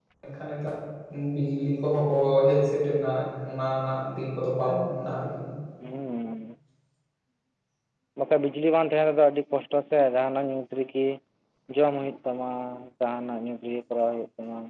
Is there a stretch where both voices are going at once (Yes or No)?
No